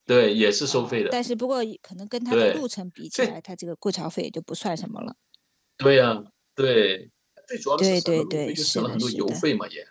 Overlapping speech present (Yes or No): Yes